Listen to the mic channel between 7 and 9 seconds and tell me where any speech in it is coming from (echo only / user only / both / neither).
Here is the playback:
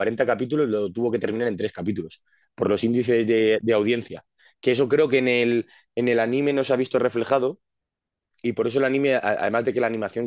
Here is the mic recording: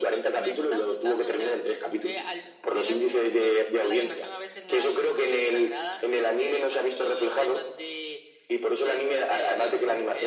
both